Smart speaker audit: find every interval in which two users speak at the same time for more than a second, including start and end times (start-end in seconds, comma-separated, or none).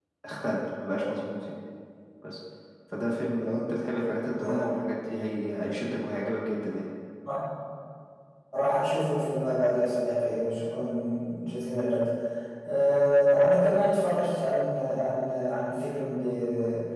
none